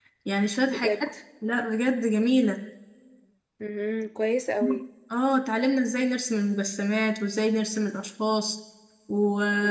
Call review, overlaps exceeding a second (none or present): none